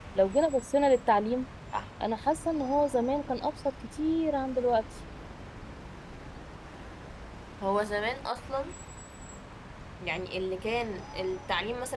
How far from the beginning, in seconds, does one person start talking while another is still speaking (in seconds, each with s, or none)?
none